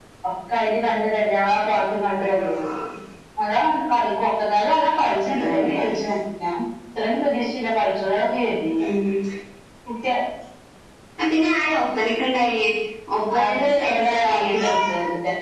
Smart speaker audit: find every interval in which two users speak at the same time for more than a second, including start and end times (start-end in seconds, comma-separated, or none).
13.4-14.7